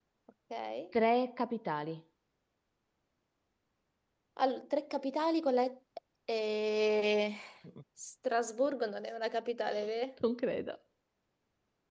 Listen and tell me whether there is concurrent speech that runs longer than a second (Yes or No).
No